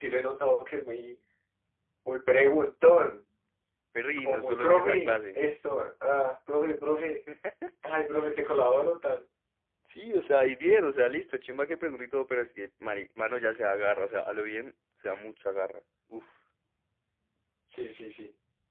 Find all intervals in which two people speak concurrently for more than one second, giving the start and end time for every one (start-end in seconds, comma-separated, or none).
4.2-5.4